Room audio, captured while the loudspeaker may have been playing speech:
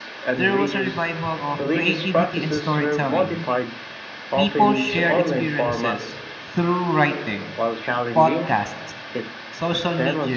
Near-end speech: present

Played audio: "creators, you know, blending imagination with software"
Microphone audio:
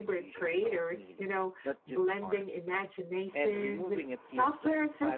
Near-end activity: present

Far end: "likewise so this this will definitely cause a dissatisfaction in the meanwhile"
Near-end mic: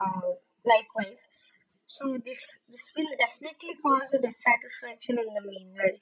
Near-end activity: none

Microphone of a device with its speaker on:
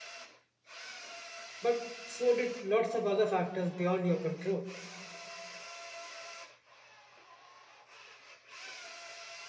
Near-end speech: present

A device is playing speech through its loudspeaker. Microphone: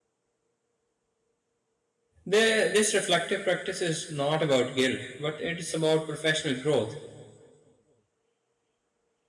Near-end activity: present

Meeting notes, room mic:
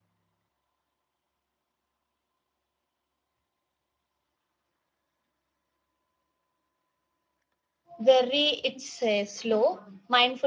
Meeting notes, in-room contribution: present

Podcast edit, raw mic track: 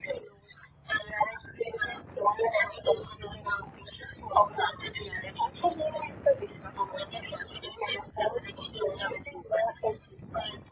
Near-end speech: none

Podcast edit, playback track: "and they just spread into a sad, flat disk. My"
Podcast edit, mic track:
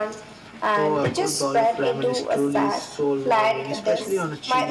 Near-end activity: present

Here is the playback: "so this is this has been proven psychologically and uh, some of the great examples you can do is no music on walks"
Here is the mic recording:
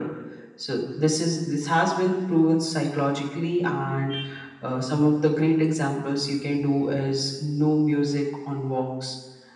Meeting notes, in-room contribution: none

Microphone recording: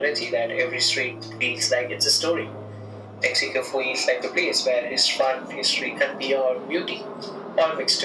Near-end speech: none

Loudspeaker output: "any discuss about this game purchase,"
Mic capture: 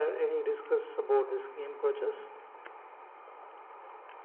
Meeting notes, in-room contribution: none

